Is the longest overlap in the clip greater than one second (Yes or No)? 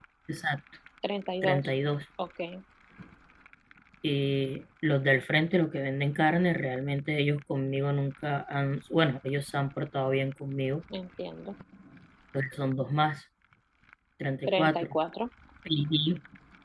No